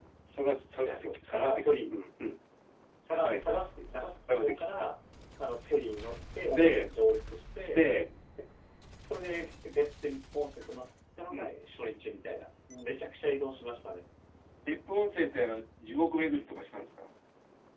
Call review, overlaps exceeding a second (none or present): present